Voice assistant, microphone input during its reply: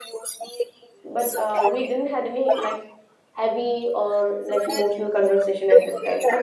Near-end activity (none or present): present